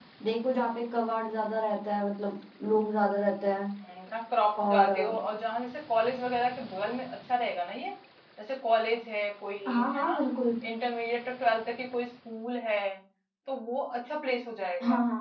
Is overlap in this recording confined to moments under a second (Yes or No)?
Yes